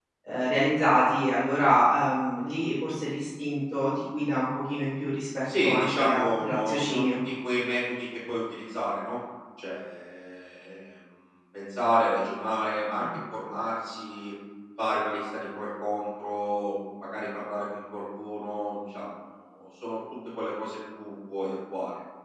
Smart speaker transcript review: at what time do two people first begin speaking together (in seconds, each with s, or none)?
5.5 s